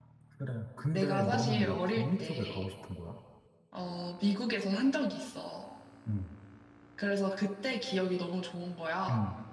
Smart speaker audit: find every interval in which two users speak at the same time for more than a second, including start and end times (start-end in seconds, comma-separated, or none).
0.9-2.6